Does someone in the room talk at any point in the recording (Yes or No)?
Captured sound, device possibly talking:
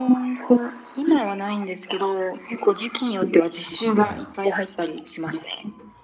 Yes